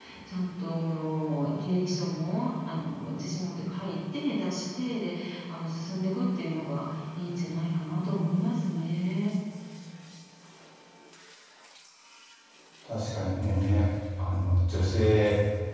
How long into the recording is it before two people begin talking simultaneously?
none

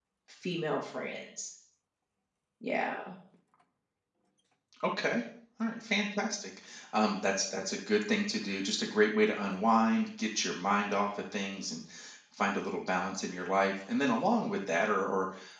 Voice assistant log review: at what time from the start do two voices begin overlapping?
none

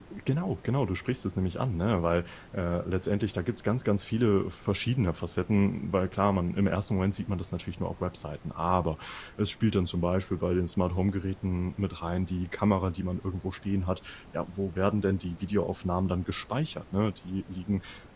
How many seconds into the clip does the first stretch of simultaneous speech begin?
none

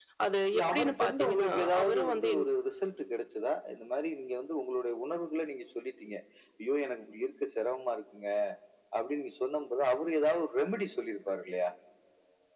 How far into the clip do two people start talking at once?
1 s

